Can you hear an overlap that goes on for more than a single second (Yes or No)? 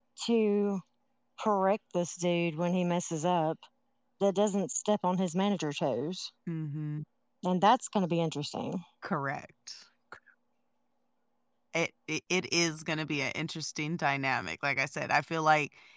No